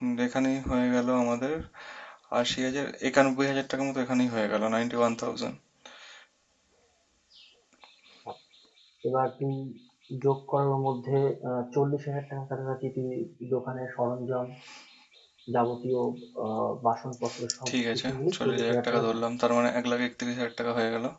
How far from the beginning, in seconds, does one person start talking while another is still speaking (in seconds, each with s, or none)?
17.7 s